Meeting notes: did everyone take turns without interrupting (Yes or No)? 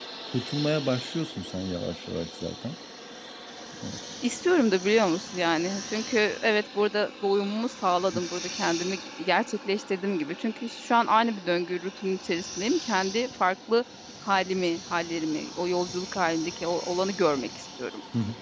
Yes